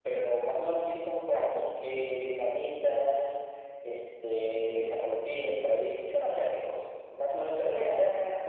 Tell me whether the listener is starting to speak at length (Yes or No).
Yes